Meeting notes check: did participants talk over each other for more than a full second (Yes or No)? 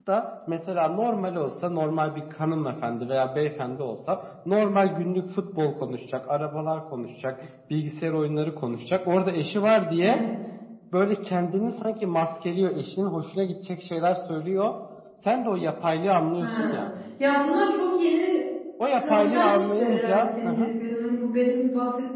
Yes